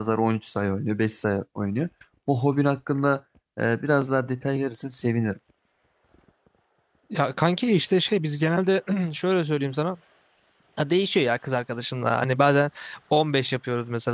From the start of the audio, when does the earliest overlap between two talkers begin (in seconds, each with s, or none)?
none